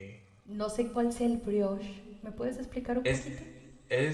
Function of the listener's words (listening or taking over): taking over